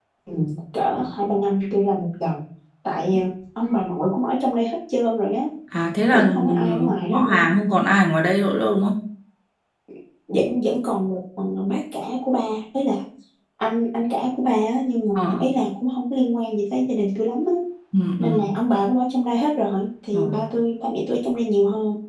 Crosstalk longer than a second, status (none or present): present